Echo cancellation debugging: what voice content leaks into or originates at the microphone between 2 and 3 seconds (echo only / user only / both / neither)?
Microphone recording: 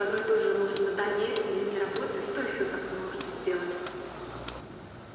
echo only